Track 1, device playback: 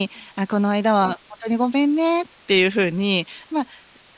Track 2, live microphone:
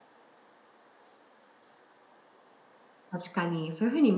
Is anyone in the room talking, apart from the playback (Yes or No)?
Yes